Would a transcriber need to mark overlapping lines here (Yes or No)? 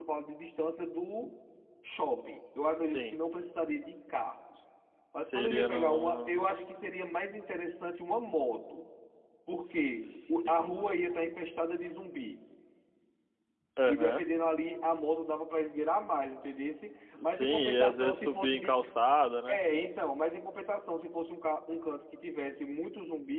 Yes